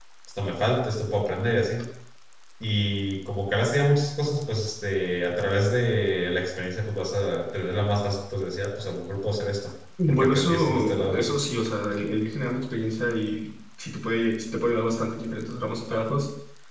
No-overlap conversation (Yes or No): No